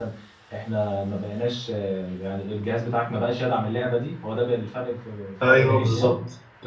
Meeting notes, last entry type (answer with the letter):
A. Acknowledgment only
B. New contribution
B